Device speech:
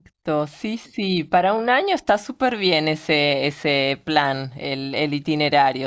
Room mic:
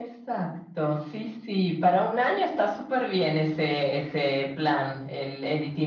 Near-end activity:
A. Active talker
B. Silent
B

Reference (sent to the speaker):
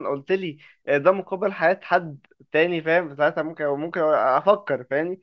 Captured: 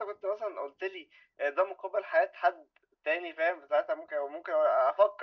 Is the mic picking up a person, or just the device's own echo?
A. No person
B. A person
A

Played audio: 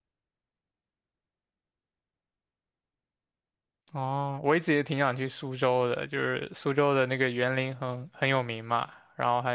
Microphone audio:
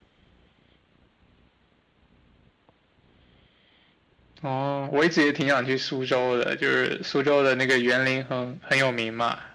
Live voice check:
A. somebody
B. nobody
B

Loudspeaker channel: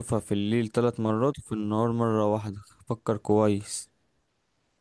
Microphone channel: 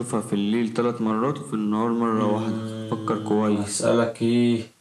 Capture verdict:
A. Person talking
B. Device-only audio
A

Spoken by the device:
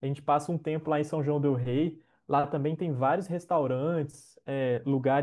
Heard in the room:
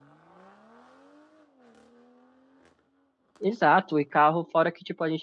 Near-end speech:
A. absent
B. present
B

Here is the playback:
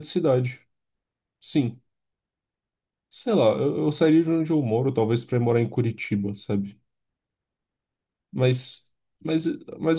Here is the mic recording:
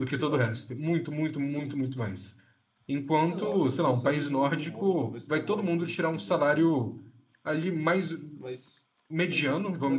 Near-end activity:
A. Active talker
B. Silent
A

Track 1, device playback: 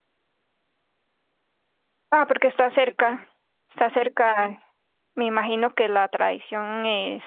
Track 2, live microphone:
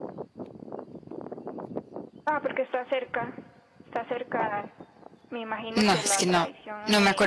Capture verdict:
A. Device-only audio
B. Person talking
B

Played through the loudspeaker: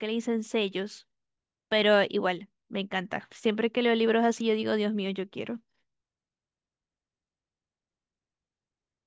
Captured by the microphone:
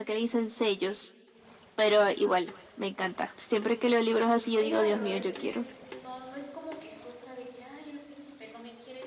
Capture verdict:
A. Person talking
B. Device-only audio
A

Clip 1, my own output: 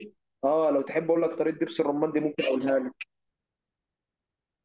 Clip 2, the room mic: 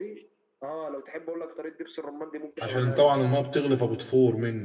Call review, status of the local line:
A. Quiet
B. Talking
B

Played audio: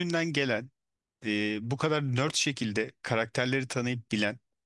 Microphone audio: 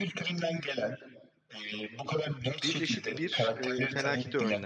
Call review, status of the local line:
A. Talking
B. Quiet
A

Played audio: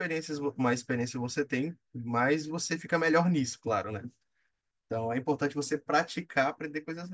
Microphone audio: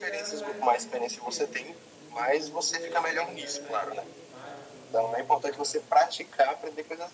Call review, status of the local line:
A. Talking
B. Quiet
A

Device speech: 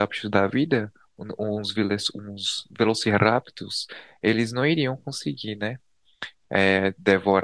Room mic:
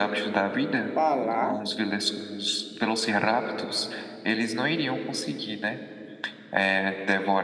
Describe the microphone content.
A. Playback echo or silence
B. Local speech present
B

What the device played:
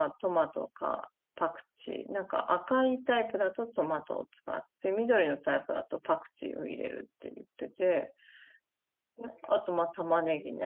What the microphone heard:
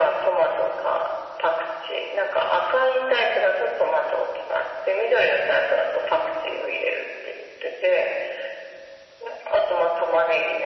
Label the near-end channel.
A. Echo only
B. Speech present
A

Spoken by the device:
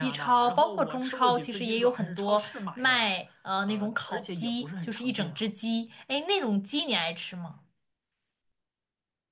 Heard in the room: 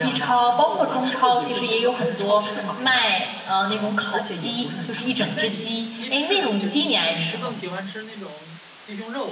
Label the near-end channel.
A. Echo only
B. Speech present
B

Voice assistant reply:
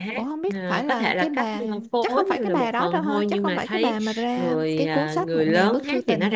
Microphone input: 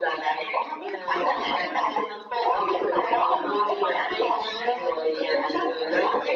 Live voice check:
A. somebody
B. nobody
B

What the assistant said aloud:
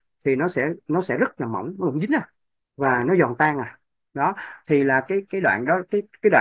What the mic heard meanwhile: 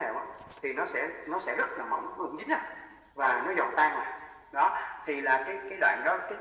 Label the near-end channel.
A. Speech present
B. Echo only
B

